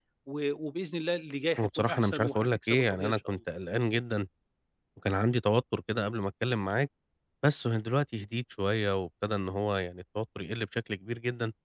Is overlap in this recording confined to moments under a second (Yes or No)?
No